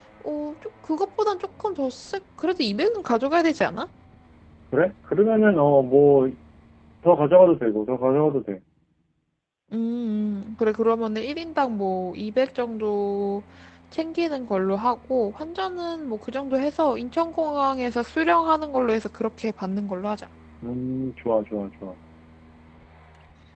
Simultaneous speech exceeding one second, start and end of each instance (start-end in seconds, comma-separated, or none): none